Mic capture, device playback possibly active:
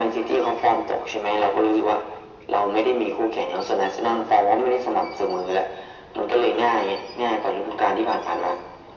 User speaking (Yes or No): No